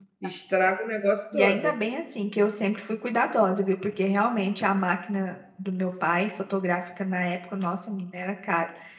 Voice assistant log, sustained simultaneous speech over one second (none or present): none